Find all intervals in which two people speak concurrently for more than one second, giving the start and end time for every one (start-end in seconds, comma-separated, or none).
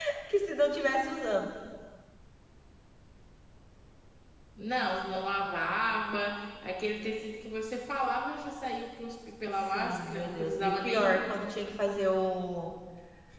9.7-11.2